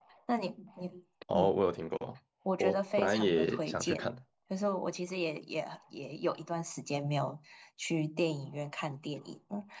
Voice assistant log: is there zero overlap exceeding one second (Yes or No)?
No